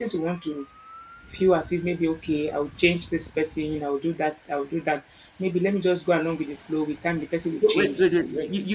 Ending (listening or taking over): taking over